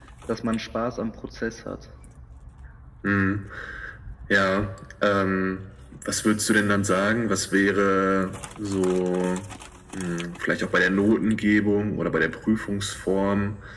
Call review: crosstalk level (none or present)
none